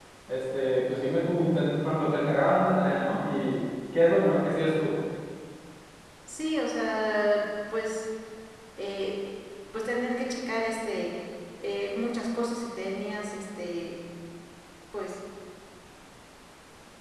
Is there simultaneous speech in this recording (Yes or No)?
No